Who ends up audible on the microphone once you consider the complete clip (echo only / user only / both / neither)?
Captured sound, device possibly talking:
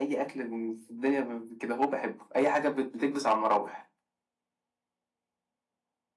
echo only